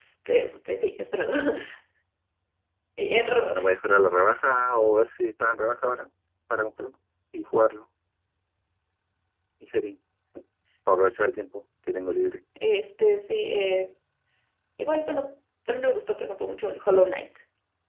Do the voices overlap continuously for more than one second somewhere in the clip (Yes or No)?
No